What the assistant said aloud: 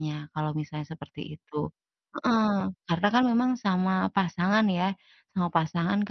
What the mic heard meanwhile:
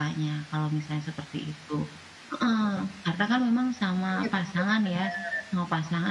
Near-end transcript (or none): Iya, bener bener bener.